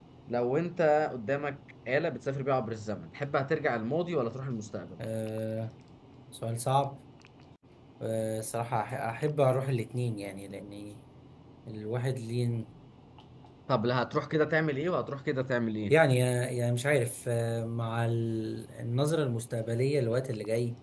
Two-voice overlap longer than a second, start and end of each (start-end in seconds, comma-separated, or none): none